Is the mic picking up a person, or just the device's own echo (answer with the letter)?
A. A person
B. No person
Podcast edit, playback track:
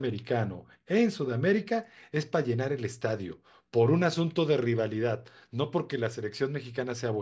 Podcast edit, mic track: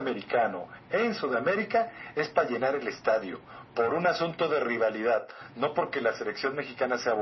B